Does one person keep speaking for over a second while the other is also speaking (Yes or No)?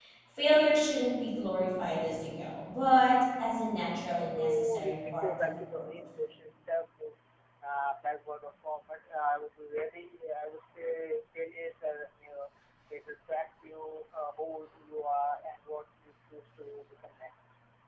Yes